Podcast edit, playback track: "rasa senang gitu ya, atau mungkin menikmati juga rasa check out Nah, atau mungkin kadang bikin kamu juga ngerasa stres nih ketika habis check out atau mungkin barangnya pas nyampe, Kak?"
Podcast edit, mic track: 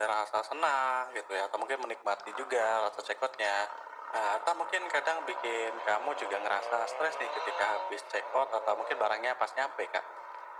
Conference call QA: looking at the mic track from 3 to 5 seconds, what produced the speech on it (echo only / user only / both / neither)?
echo only